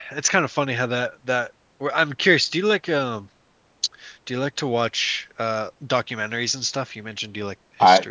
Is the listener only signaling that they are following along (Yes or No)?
No